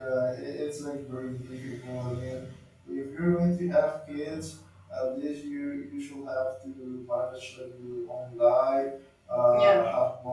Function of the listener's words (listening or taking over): listening